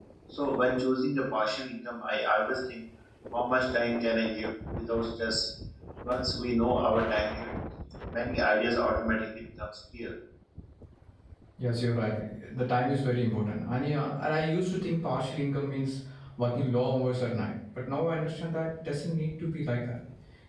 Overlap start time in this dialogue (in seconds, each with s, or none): none